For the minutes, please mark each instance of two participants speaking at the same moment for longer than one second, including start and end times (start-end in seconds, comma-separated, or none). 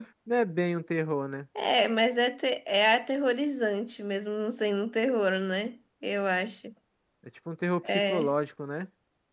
none